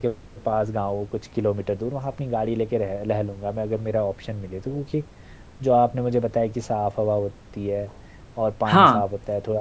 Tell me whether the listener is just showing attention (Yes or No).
Yes